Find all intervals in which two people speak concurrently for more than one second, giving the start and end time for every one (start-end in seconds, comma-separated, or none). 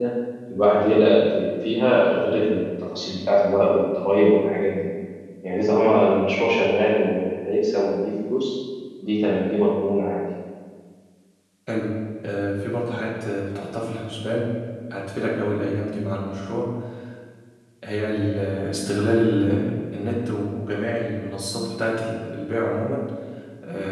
none